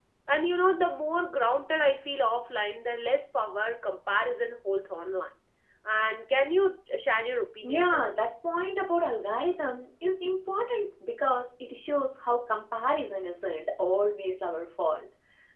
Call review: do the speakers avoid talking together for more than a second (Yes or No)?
Yes